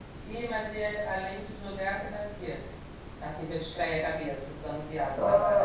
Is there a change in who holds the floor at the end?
Yes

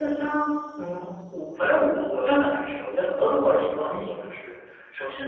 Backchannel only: No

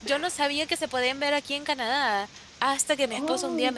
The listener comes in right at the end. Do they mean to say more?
No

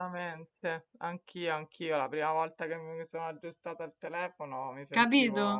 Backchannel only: Yes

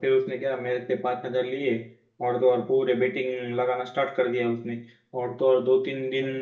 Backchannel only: Yes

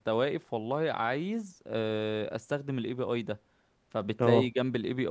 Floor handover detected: No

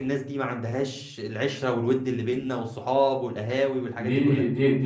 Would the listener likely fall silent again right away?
No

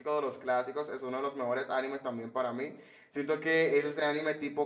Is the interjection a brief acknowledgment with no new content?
Yes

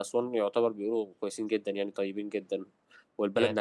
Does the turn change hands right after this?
No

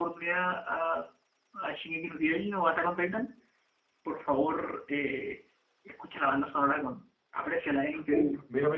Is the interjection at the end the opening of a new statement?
Yes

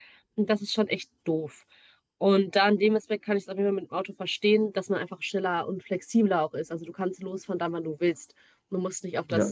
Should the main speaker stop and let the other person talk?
No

